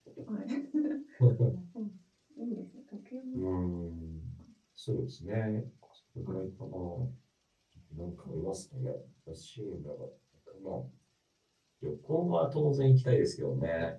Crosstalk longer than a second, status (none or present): none